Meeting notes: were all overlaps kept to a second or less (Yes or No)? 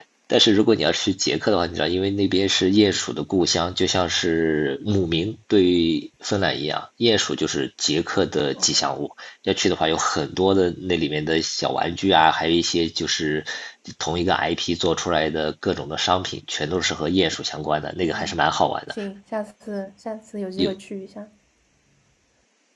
Yes